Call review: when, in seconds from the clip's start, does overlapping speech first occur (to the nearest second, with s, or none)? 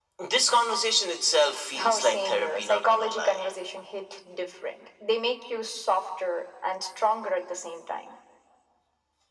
2 s